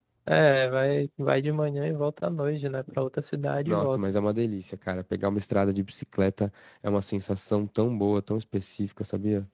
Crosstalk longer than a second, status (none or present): none